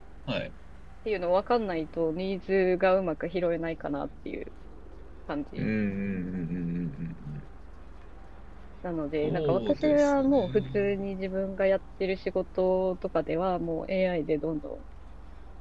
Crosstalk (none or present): present